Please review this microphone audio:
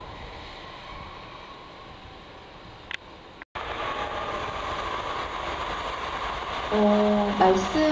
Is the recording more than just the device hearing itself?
Yes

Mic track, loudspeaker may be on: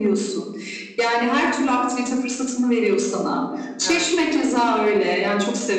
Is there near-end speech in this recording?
Yes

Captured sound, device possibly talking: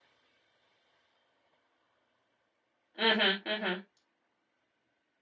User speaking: Yes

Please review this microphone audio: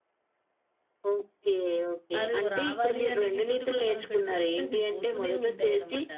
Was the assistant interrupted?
Yes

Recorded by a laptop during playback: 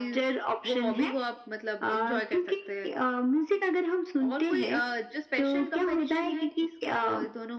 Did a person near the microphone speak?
No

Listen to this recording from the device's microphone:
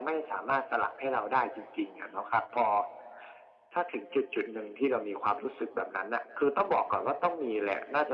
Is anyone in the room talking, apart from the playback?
No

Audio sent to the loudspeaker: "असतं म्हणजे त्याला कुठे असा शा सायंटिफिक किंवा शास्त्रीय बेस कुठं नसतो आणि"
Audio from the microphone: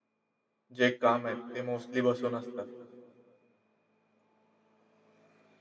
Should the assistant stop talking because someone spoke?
Yes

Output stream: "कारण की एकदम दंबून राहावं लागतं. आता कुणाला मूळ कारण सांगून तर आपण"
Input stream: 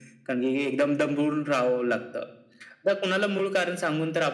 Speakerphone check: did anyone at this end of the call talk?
No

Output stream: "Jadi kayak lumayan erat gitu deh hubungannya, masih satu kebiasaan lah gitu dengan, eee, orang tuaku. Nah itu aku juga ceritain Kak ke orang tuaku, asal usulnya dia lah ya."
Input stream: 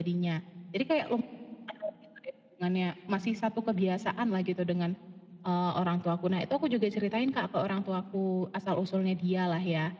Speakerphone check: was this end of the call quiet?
Yes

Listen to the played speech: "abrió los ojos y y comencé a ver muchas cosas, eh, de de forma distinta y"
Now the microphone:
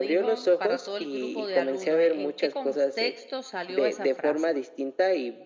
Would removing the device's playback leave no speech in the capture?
No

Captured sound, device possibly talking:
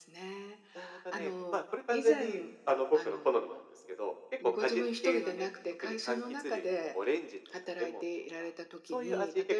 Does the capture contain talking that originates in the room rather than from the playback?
No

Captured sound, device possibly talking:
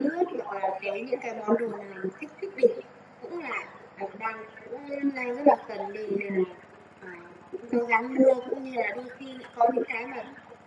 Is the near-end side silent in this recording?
Yes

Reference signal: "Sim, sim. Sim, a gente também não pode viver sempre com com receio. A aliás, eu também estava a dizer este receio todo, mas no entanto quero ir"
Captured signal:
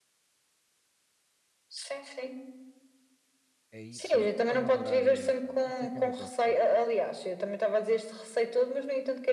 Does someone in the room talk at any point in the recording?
Yes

